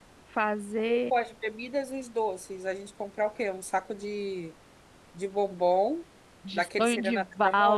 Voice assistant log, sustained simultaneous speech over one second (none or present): present